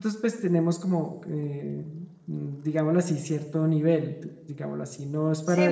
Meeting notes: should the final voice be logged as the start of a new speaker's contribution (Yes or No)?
Yes